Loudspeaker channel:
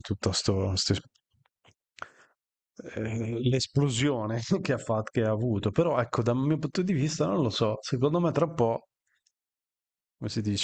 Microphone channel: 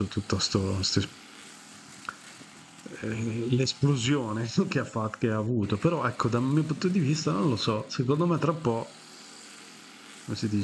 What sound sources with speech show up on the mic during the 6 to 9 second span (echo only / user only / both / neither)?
echo only